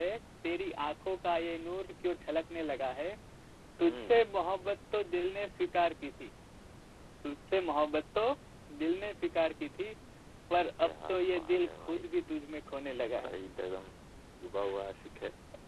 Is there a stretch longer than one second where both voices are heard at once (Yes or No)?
Yes